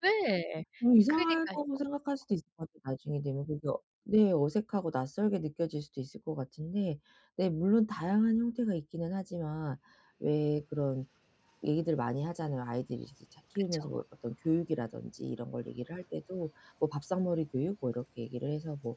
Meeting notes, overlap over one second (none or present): none